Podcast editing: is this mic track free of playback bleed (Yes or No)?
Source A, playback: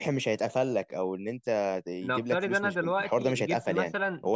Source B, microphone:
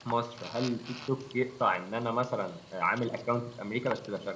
Yes